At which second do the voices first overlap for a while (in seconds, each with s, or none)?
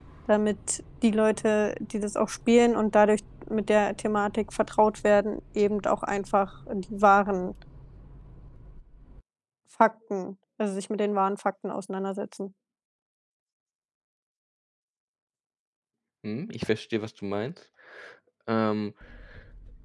none